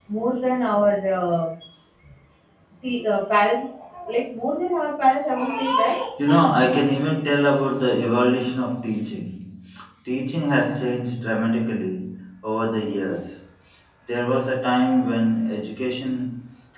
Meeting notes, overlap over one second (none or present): none